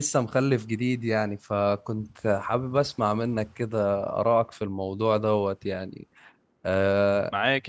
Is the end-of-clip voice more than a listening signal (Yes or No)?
Yes